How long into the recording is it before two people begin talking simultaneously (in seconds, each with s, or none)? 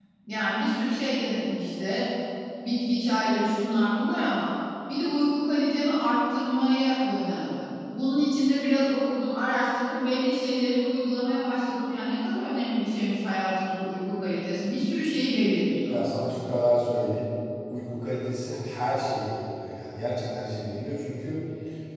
none